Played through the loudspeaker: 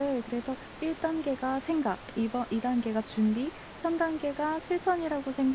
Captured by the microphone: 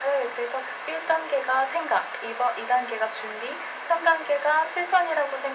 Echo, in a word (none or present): present